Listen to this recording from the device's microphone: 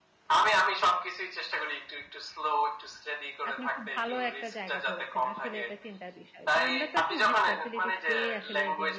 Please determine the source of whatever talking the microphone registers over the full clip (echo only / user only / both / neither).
both